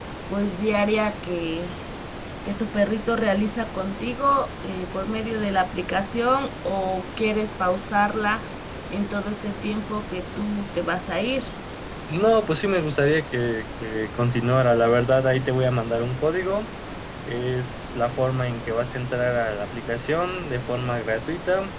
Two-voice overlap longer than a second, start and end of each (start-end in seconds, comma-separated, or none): none